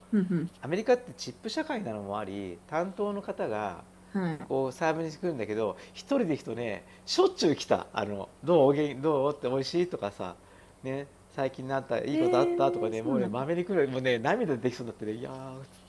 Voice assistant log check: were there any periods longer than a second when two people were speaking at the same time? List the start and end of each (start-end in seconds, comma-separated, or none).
12.1-13.4